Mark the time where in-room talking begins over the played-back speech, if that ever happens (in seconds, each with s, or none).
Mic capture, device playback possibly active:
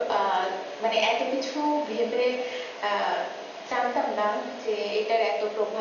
none